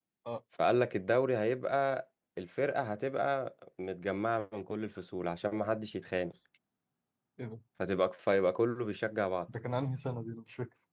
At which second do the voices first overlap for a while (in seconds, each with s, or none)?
none